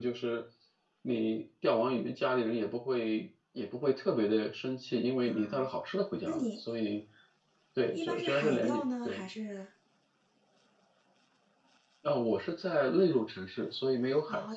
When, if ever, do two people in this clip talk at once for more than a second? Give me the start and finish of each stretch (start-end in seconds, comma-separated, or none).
7.9-9.3